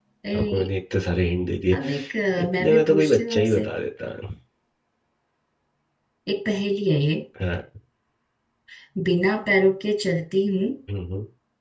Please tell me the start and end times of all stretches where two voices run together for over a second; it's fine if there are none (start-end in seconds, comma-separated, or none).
2.4-3.7